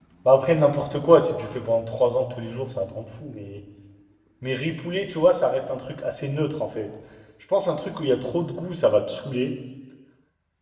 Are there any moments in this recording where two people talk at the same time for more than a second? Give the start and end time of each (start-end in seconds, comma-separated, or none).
none